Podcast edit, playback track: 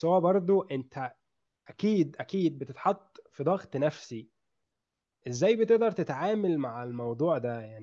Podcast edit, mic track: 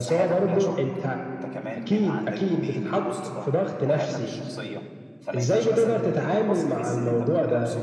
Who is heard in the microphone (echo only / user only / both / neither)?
both